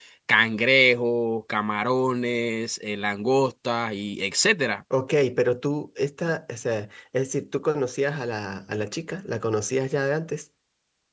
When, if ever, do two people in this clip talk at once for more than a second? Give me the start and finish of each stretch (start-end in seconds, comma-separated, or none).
none